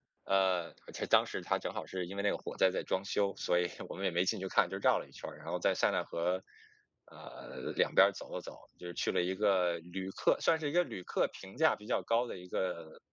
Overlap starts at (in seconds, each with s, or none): none